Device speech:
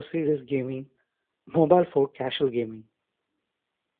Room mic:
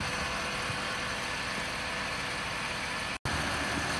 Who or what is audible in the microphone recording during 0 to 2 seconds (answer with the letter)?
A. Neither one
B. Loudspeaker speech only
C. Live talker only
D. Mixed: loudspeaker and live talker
A